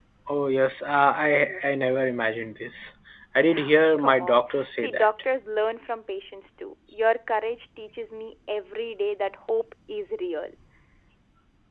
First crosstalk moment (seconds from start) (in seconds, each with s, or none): 3.5 s